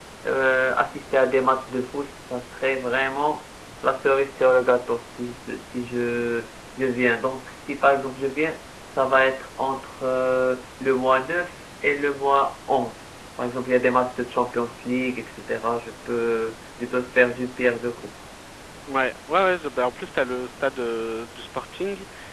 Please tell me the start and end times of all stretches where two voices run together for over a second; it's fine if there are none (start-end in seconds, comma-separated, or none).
none